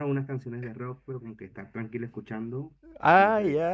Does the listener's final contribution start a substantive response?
Yes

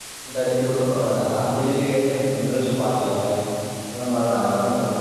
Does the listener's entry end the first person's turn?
No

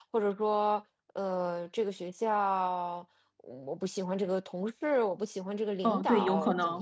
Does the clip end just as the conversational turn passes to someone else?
Yes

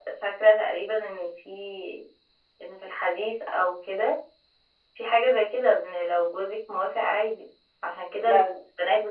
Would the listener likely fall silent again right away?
Yes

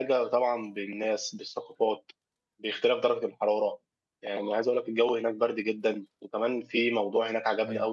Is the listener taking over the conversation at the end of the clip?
No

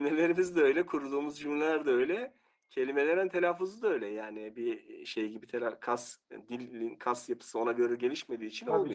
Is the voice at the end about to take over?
Yes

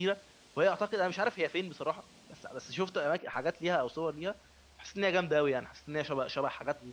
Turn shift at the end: Yes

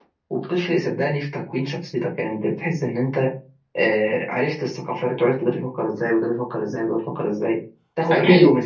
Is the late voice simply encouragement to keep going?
Yes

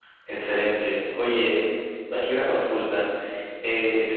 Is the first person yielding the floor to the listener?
No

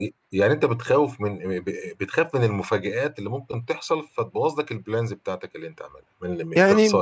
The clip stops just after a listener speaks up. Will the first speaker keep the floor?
No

